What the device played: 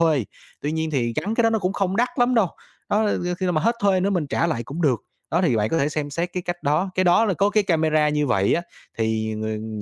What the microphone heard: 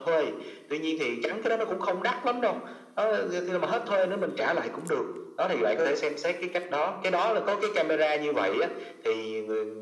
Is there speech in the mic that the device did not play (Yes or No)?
No